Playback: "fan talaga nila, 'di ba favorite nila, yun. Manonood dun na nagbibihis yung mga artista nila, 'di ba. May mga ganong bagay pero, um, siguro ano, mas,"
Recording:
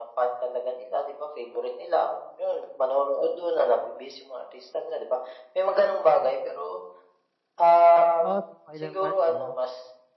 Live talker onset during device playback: 8.2 s

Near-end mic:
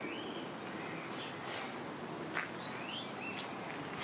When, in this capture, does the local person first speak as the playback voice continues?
none

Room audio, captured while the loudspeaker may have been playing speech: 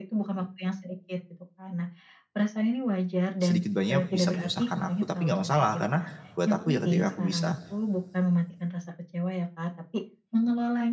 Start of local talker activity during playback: 3.4 s

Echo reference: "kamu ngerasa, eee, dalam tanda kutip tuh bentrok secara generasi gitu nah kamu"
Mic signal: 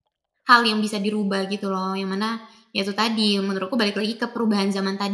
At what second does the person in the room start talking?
0.5 s

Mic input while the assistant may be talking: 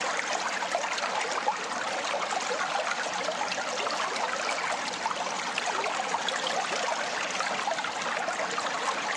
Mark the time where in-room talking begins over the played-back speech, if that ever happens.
none

